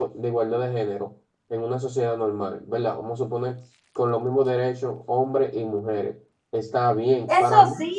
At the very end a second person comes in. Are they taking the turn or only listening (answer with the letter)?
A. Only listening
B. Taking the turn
A